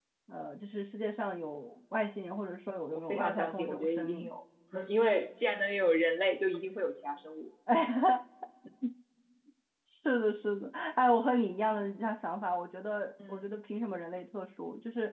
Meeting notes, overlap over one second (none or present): present